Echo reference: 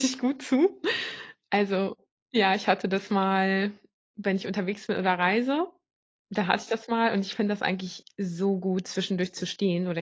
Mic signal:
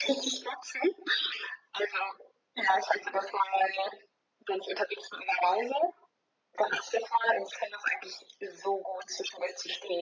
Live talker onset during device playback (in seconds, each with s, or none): none